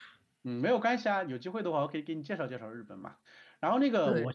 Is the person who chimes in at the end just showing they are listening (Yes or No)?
Yes